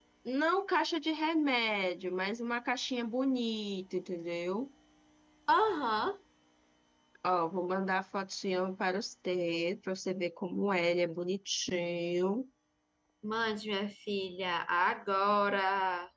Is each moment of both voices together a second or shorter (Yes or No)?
Yes